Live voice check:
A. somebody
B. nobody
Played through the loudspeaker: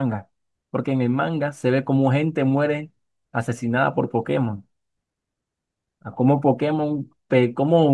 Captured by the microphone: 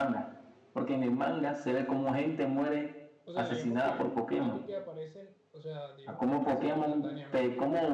A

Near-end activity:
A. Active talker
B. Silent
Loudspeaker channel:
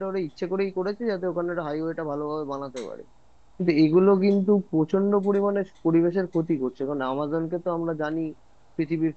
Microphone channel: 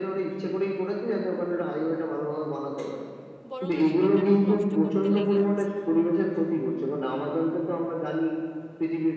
A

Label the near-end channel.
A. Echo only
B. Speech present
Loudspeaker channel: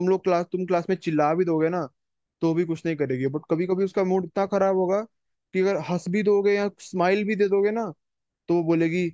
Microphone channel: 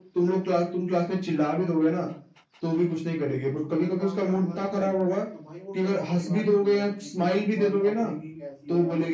B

